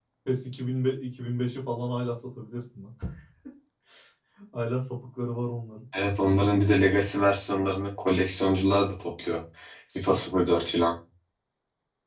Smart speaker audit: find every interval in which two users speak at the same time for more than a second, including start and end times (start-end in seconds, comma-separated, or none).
none